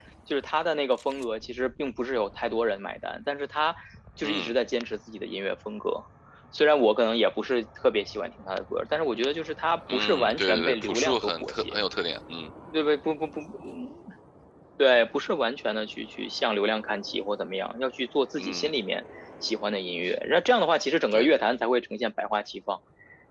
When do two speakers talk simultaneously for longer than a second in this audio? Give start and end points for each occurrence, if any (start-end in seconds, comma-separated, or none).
9.9-11.8